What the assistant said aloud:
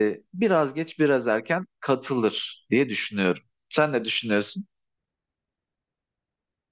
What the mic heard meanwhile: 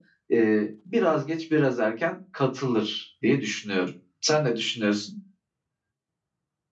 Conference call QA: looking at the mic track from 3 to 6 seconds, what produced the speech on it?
echo only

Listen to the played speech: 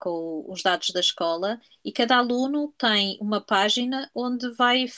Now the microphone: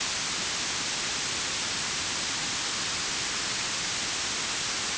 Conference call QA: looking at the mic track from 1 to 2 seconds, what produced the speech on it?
neither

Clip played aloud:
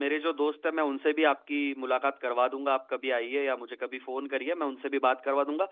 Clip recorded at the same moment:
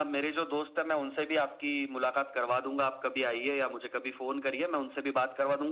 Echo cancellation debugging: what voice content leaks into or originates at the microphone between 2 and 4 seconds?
echo only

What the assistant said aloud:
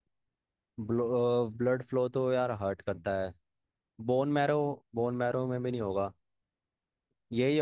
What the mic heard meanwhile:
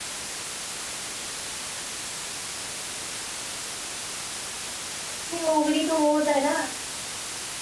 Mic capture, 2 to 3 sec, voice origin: neither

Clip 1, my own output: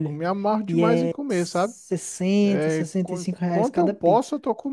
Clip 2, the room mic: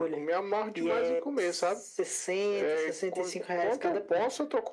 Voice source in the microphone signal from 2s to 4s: echo only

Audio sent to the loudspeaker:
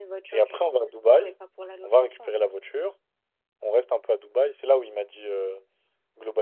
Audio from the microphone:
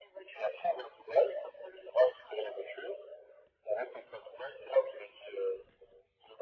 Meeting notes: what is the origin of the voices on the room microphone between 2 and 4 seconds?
echo only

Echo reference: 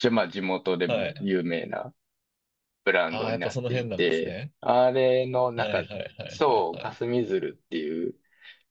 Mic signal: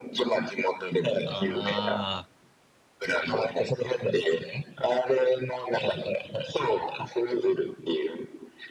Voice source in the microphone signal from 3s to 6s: echo only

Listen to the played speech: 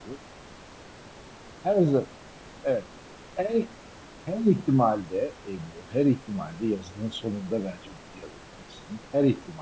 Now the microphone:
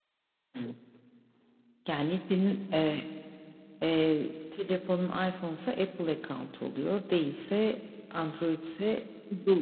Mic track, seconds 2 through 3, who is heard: user only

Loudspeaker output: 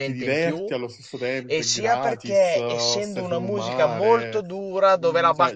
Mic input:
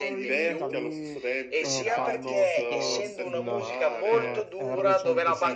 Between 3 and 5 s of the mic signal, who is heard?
both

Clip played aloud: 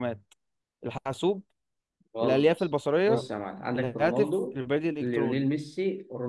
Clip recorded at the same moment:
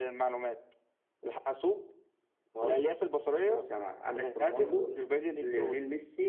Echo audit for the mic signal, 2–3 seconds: echo only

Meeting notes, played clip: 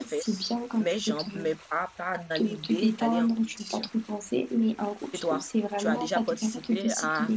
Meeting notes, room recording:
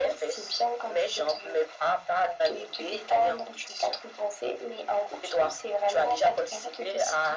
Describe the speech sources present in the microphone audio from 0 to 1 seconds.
echo only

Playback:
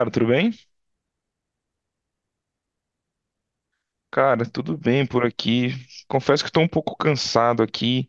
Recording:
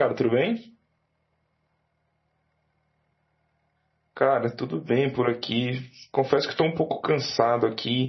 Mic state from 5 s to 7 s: echo only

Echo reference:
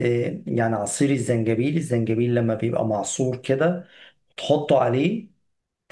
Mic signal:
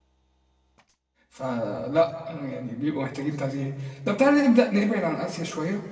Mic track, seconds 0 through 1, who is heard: neither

